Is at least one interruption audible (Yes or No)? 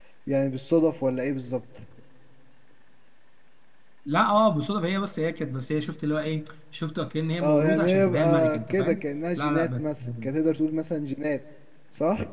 Yes